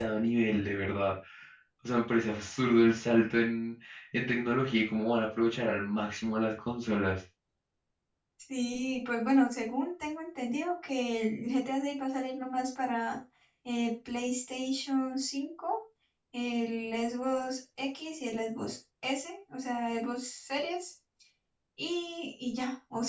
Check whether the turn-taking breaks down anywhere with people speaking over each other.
No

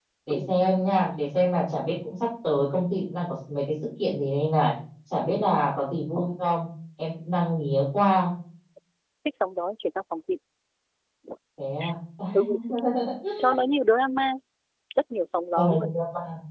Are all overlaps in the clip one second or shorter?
Yes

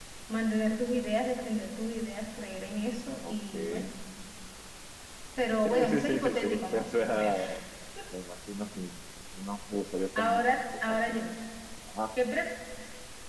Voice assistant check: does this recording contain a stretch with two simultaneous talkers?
Yes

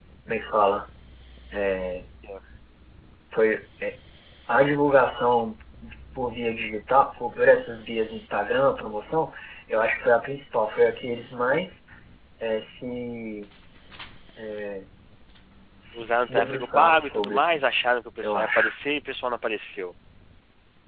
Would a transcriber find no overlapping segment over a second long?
No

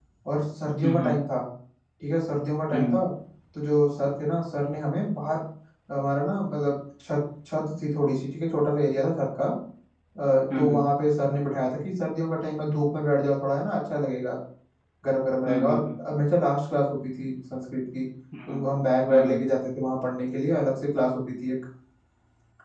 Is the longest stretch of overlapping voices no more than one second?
Yes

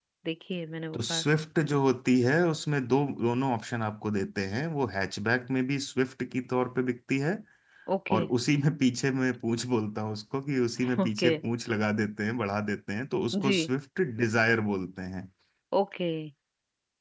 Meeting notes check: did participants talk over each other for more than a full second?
No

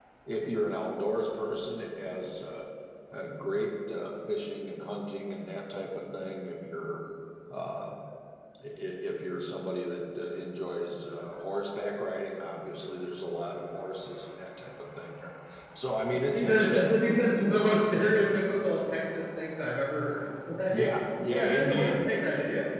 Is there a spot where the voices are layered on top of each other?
Yes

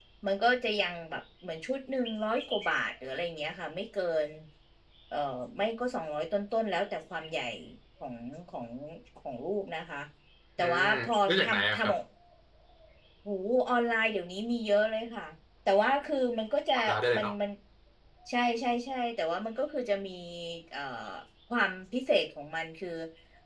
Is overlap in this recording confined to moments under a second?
No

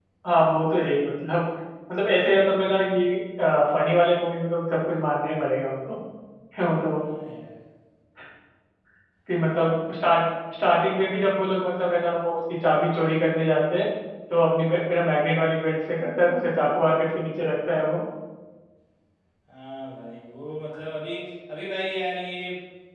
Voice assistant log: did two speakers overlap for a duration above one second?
No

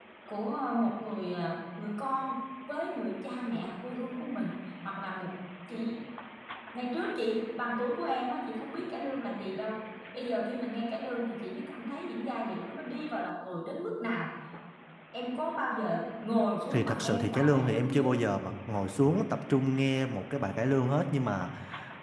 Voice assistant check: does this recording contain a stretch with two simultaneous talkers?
Yes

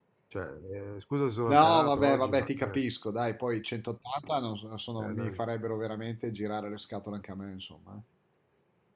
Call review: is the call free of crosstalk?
No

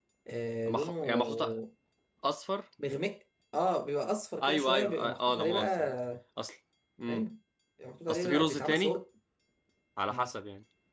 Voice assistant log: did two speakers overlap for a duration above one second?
Yes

